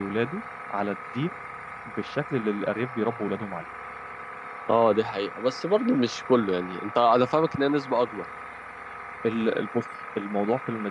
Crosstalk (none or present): none